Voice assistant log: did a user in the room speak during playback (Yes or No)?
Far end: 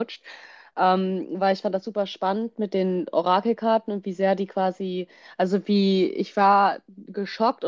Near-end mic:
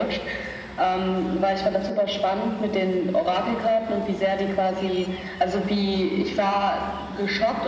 No